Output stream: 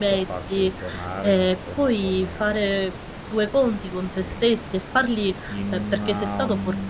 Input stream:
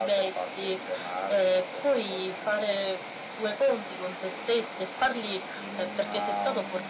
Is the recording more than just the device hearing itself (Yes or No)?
No